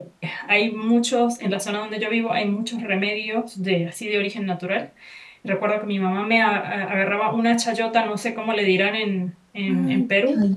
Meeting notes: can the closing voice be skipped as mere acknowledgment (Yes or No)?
No